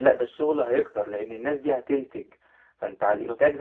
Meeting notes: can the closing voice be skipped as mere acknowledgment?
Yes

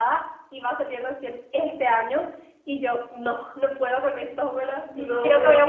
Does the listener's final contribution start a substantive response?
No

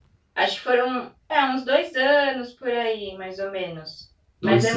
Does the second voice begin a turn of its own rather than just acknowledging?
No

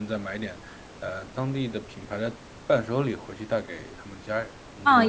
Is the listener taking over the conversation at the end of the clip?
Yes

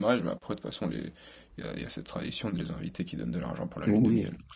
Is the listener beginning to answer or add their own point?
Yes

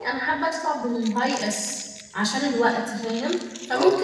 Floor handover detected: No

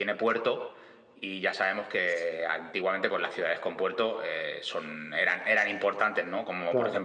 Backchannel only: Yes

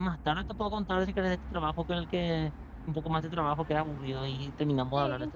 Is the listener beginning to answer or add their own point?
Yes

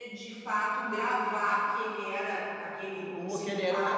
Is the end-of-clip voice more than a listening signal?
Yes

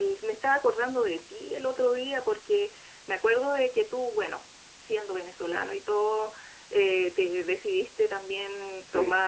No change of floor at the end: Yes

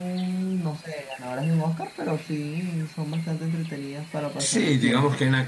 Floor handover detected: Yes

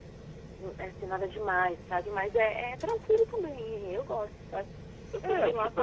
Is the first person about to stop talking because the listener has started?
Yes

